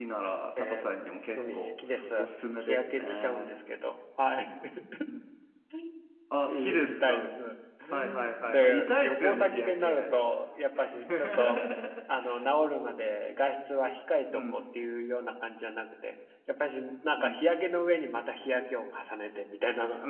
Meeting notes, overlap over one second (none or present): present